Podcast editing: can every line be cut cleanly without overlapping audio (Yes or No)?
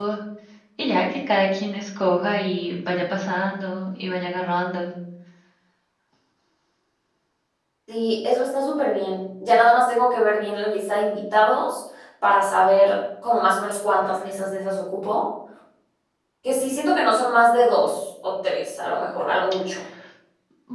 Yes